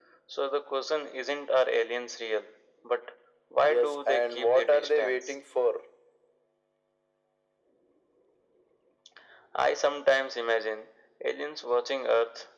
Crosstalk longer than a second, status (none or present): present